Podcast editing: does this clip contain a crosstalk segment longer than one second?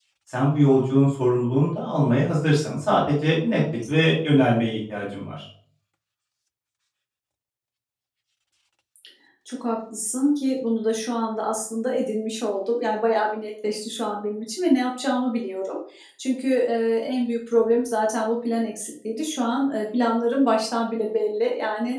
No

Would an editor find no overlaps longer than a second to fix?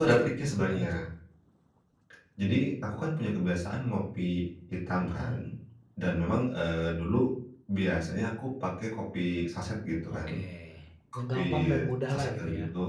No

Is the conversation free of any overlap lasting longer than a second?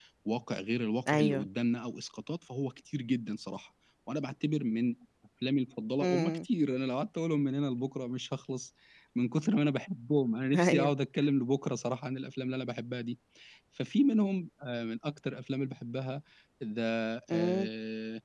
Yes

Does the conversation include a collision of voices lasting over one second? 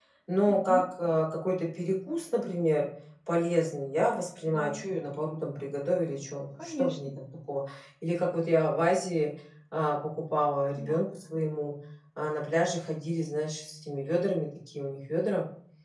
No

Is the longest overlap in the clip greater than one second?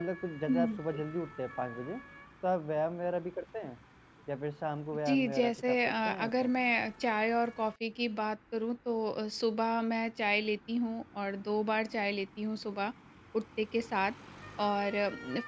Yes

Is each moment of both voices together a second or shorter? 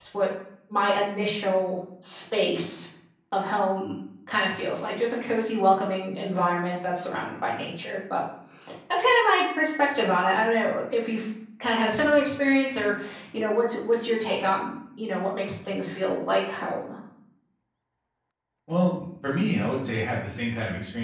Yes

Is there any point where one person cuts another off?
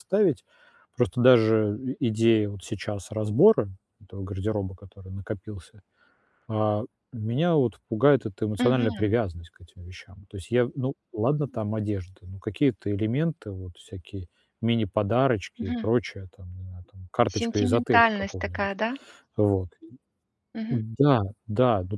Yes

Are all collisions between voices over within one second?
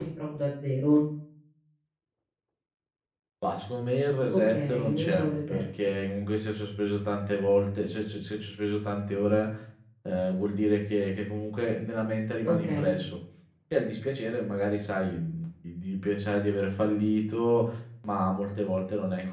No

